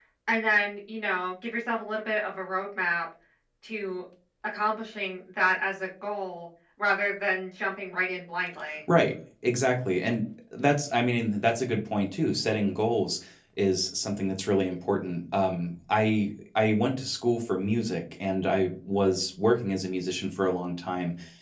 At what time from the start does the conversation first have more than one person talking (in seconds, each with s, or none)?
none